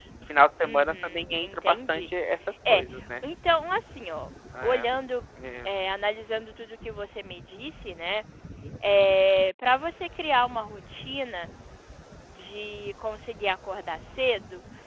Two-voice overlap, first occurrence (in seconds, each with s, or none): 0.6 s